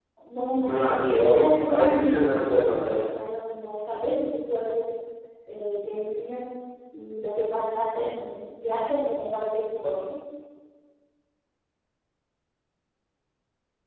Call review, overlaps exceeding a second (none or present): present